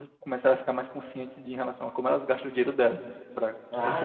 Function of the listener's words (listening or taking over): listening